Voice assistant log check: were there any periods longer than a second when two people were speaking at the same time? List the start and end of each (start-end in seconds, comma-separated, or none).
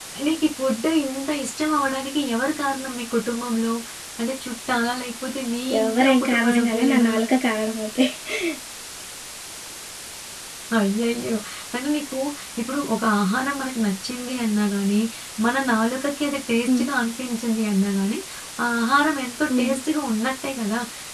5.8-7.1